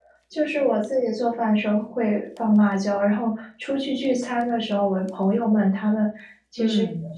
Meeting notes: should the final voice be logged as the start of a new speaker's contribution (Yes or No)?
No